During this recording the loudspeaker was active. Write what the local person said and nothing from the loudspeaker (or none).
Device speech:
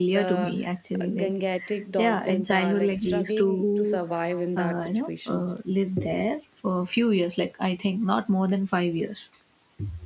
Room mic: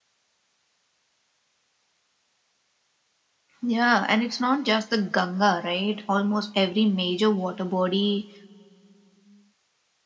Yeah, and it's not just the Ganga, right? Almost every major water body